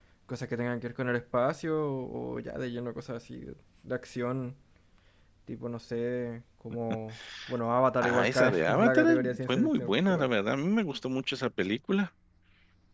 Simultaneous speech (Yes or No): Yes